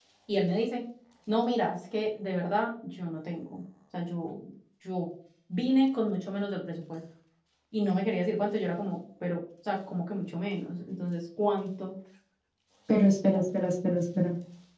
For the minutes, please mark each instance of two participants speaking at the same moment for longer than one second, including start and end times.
none

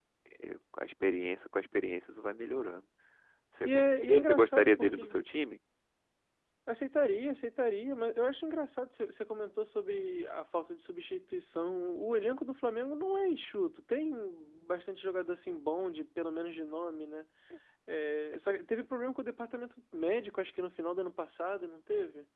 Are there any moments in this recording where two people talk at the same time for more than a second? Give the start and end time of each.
3.6-5.2

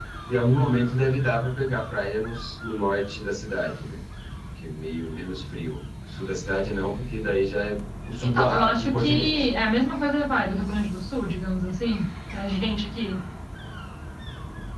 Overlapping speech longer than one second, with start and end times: 8.2-9.4

